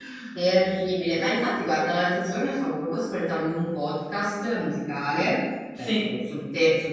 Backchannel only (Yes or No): Yes